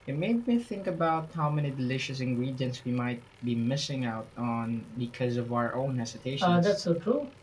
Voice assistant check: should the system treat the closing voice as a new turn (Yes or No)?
Yes